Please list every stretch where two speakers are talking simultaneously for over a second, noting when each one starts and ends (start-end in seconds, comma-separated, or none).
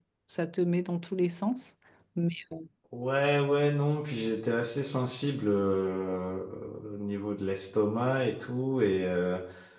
none